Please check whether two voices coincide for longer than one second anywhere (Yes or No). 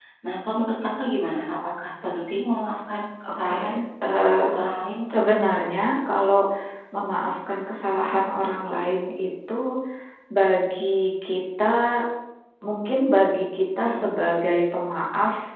No